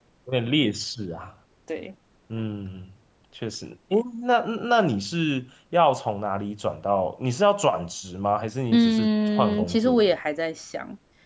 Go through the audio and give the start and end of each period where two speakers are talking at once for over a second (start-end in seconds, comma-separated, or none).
8.7-10.2